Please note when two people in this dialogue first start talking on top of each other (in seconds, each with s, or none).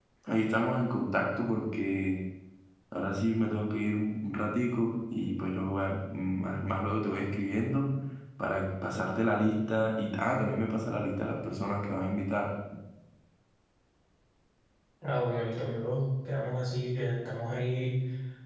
none